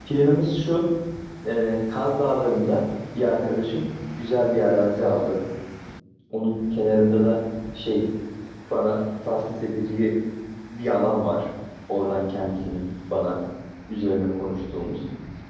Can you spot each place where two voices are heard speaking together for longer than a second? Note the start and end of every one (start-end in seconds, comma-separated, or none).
none